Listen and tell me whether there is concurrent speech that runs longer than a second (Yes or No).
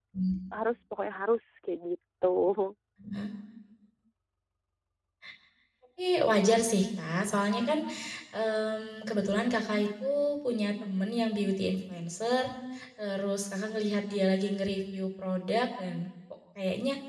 No